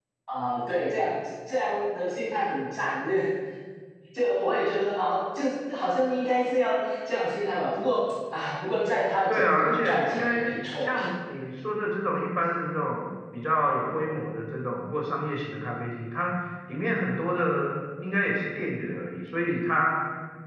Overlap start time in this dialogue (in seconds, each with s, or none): 9.3 s